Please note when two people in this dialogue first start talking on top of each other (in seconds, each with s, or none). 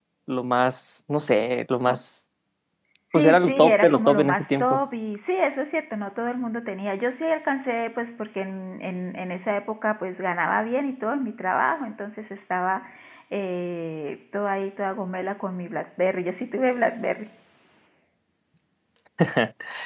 3.1 s